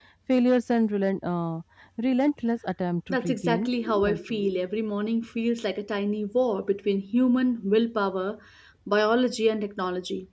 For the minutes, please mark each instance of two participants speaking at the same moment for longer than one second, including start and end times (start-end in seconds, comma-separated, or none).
3.1-4.5